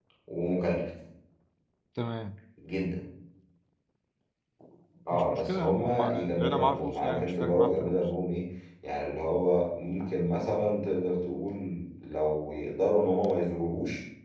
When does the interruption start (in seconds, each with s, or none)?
5.1 s